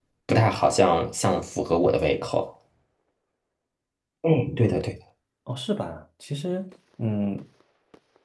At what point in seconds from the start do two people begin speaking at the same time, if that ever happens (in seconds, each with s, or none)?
none